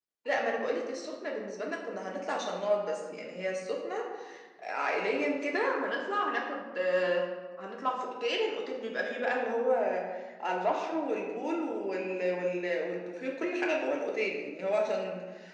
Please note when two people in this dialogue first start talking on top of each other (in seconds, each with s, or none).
none